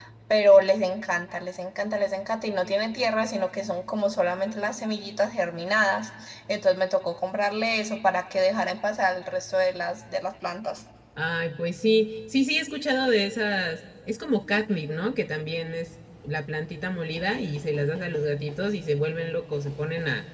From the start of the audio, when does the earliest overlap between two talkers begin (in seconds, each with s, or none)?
none